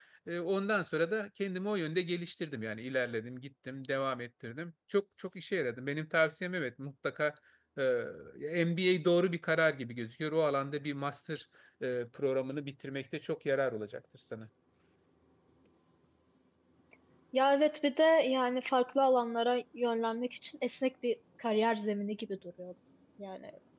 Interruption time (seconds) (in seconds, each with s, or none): none